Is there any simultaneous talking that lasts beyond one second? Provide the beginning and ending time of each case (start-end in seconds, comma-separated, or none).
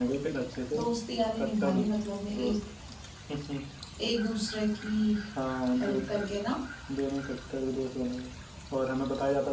none